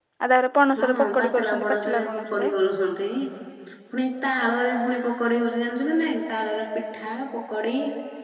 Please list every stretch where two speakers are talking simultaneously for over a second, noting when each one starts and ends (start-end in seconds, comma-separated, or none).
0.8-2.5